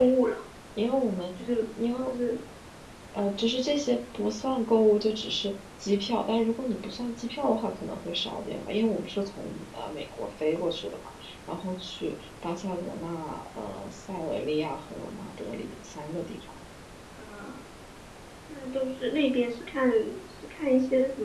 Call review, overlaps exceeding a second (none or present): none